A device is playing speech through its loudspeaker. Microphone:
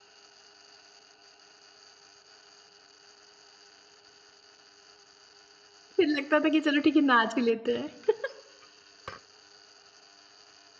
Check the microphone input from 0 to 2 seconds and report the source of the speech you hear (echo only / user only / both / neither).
neither